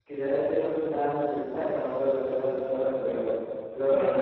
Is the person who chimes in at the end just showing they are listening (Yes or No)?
Yes